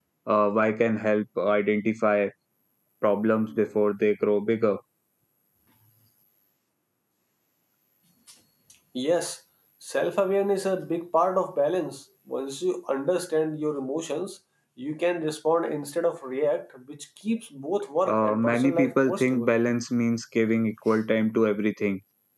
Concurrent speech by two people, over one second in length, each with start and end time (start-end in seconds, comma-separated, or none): 18.0-19.5